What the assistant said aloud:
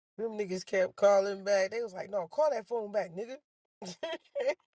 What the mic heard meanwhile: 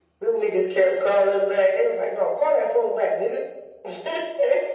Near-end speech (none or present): none